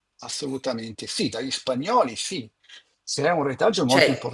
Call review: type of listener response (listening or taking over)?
listening